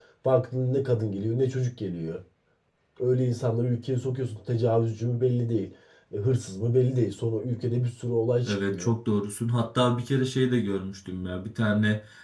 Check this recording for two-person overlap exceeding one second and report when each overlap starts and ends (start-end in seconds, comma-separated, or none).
none